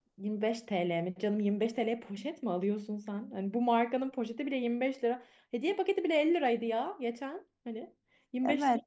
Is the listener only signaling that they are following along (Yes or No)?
No